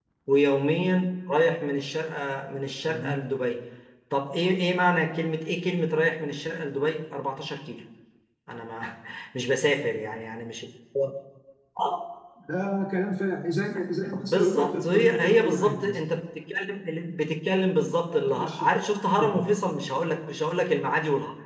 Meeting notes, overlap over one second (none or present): present